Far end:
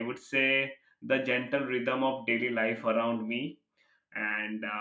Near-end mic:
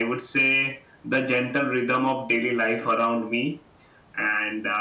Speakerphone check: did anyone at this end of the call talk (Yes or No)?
No